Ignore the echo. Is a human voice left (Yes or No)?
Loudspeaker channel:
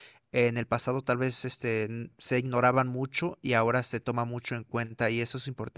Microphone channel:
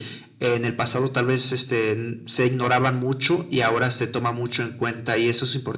No